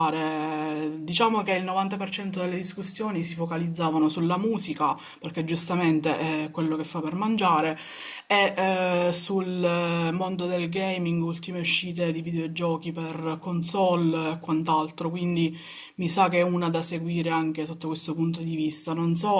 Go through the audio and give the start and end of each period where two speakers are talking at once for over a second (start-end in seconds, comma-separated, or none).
none